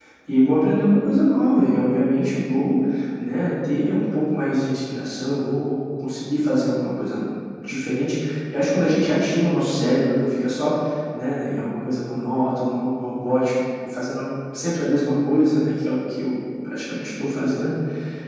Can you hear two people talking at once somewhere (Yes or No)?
No